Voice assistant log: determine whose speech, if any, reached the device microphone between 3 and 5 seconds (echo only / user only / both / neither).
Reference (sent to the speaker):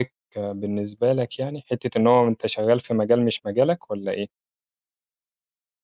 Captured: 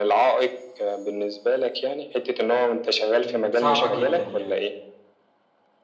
both